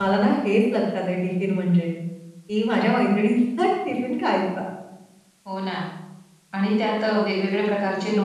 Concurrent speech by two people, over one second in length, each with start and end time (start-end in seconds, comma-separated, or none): none